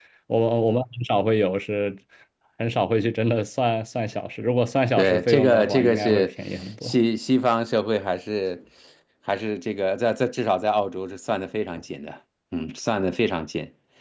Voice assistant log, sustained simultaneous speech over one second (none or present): present